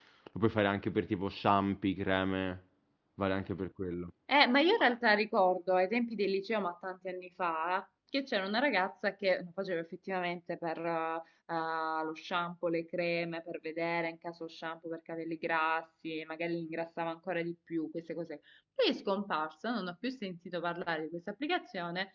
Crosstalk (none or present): none